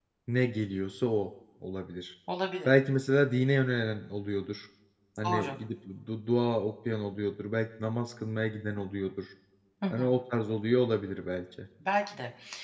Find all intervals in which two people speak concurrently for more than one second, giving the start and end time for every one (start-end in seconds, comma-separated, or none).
none